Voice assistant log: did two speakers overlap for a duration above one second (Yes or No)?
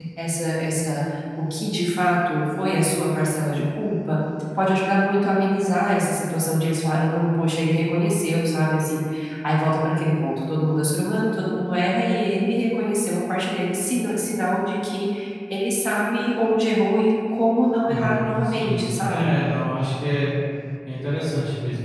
Yes